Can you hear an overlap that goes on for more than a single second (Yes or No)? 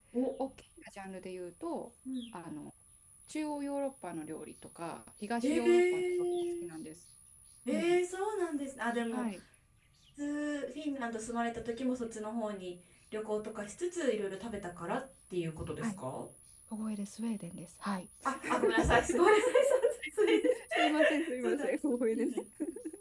Yes